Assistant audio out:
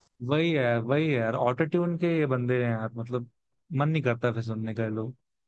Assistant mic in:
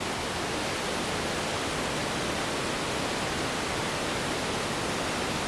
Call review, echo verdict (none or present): none